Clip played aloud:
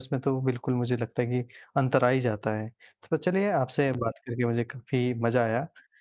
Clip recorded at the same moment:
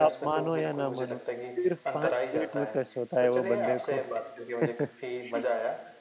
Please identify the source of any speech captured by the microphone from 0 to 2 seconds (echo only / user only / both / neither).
both